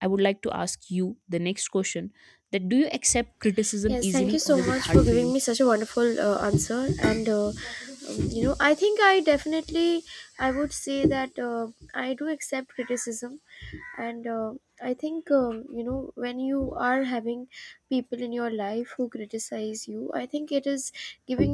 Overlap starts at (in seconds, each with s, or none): 3.6 s